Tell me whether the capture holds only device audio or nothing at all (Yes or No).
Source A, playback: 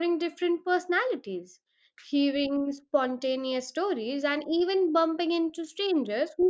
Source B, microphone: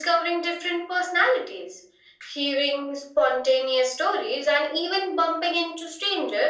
Yes